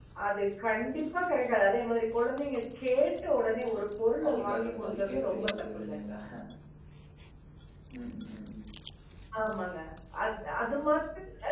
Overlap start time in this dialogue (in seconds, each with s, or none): 4.2 s